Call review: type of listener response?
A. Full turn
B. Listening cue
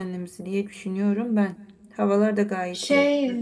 A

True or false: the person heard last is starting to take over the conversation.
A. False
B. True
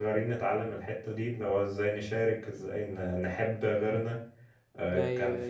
A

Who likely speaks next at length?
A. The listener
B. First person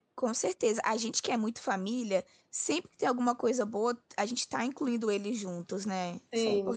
A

